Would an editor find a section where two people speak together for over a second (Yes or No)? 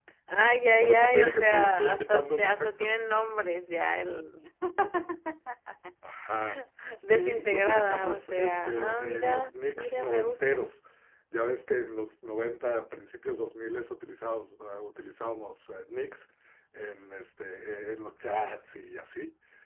Yes